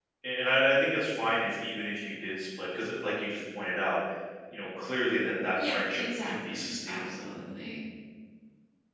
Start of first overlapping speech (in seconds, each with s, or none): 5.6 s